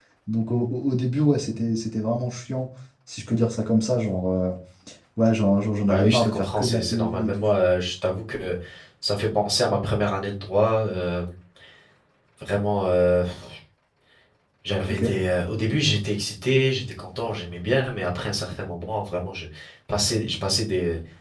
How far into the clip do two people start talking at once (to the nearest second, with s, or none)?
6 s